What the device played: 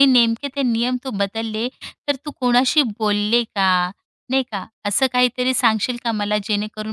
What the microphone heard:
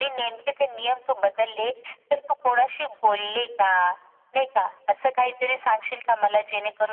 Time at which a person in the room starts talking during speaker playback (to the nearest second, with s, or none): none